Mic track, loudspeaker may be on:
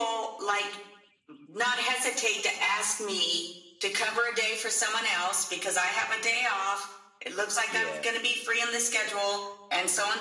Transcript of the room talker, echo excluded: yeah,

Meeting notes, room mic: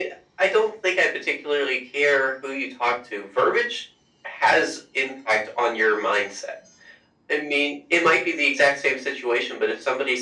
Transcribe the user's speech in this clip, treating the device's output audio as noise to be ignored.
none

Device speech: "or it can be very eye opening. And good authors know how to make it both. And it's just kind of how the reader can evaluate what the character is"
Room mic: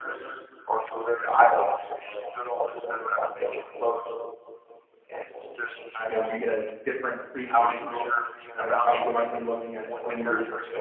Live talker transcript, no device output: you know, you get a different appreciation for it, right? Like, you might be looking at it through

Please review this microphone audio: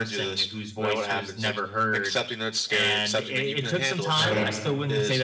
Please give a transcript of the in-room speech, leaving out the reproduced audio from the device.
right.

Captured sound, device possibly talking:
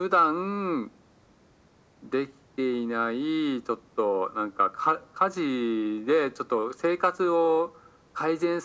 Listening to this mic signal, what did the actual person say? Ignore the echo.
none

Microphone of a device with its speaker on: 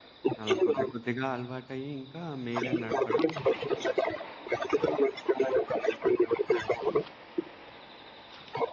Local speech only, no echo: అలా కొద్ది కొద్దిగా అలవాటయ్యి ఇంకా మీరే నడపడం

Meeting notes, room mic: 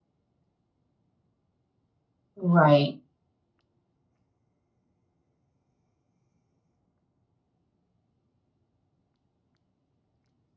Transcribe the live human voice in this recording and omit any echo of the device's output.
right,

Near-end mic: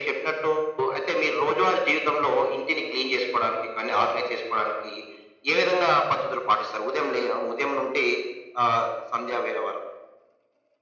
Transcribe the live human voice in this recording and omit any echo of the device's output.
none

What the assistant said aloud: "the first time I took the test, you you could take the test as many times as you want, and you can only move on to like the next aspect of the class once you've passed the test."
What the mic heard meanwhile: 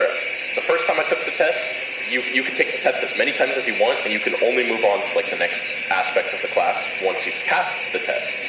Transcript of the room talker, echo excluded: none

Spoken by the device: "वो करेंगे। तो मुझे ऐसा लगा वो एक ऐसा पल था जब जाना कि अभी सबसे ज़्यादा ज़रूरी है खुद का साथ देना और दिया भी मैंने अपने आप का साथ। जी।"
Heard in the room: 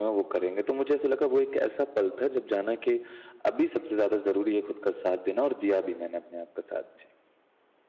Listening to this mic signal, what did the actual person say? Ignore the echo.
none

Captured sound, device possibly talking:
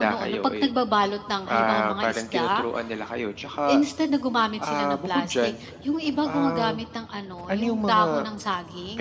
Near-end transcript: none

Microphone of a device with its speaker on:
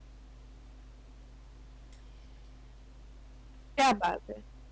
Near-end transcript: क्या बात है!

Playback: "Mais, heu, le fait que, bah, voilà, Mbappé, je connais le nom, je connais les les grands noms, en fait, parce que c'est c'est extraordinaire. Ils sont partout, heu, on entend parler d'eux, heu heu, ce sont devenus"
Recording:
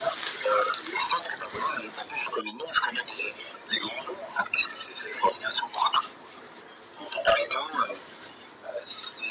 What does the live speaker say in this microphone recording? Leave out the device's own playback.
none

